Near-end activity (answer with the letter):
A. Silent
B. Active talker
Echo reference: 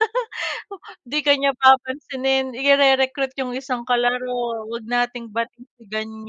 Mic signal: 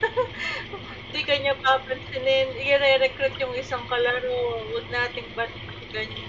A